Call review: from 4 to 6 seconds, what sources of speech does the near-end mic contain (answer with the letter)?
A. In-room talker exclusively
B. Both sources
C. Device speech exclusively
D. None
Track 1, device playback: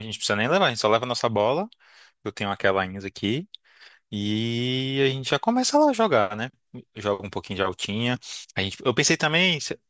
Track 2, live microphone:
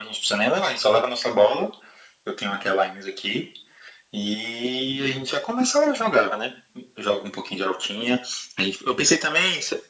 C